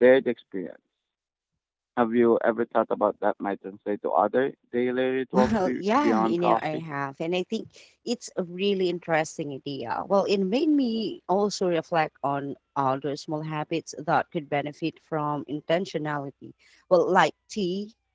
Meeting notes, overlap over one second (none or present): present